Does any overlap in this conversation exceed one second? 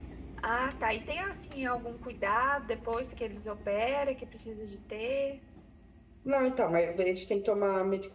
No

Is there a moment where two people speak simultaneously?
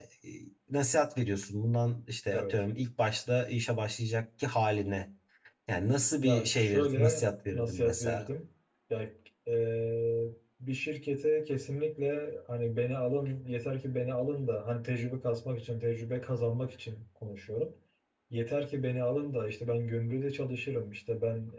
Yes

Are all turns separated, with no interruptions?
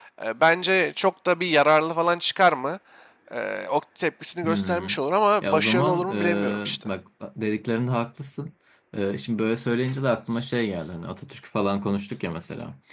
No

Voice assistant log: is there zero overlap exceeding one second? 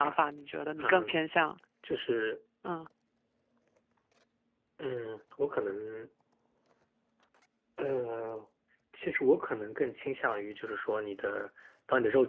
Yes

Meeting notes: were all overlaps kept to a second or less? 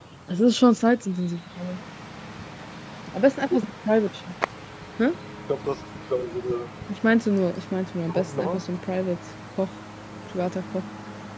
Yes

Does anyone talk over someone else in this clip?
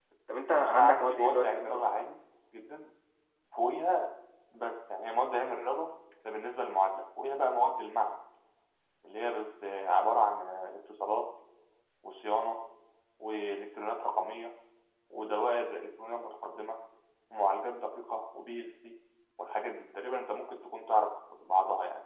Yes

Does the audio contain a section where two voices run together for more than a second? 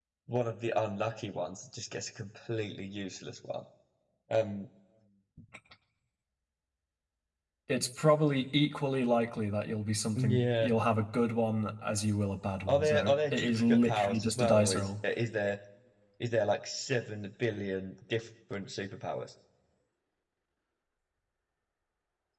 Yes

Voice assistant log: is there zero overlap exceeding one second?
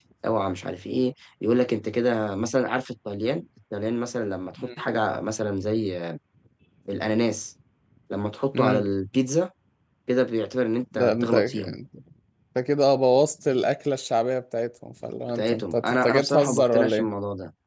No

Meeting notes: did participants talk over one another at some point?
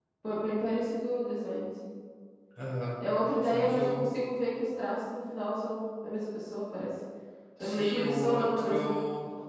Yes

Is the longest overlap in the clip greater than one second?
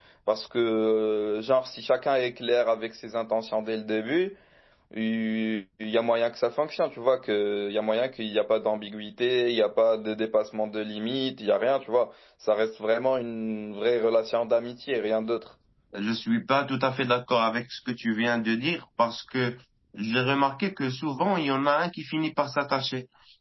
No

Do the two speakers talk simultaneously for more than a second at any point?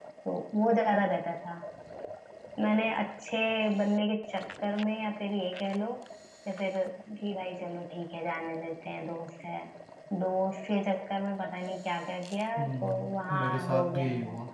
Yes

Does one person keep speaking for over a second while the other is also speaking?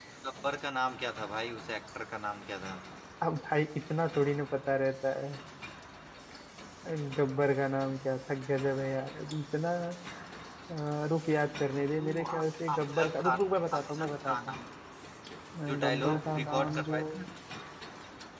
Yes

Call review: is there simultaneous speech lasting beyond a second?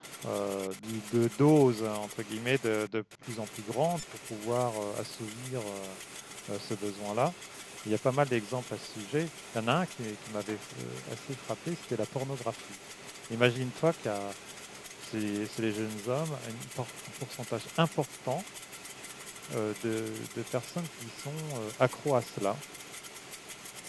No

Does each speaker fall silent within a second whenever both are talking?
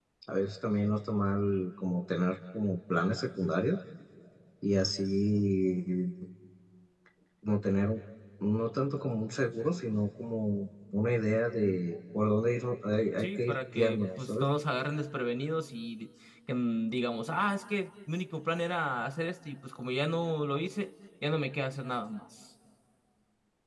No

